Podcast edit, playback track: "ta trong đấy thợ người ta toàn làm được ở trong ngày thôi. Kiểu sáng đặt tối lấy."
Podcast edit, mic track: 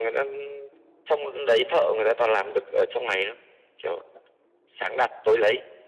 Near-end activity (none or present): none